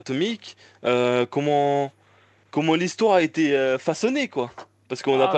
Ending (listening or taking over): taking over